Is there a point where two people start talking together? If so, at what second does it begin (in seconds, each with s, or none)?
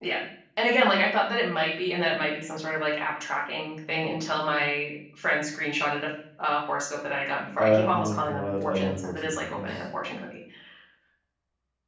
7.6 s